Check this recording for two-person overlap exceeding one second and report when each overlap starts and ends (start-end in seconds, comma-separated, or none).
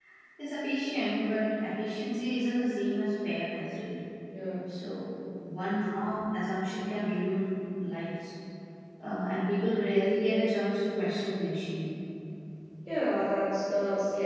none